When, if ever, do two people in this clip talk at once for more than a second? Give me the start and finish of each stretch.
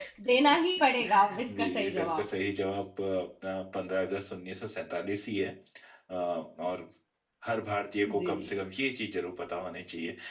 1.1-2.3

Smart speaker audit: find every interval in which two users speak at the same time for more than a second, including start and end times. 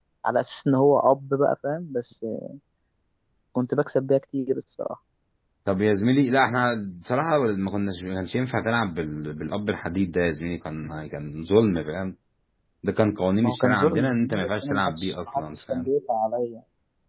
13.4-15.9

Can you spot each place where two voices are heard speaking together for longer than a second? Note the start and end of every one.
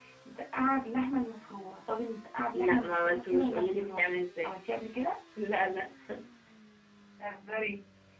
2.5-4.5

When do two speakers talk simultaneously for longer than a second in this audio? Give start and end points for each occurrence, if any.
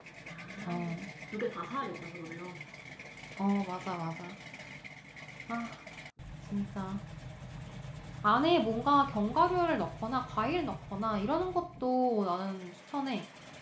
none

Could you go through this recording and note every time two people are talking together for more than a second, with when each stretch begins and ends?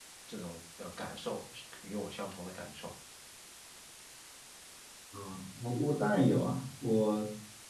none

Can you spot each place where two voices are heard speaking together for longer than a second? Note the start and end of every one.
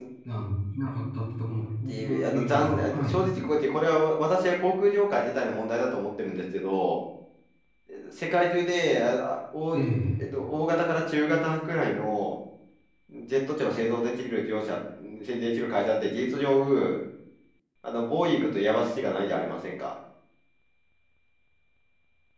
1.9-3.2

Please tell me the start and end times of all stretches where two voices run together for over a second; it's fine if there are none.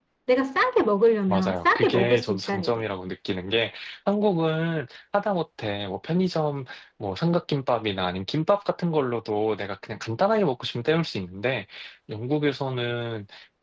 1.3-2.8

